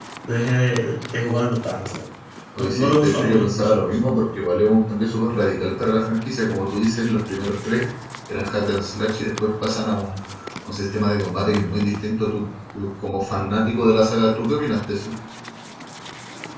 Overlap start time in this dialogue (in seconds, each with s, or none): 2.5 s